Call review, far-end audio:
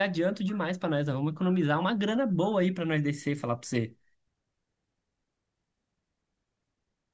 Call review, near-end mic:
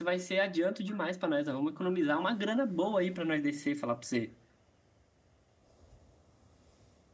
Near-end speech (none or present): none